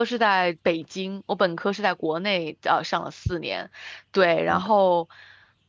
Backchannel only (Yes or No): Yes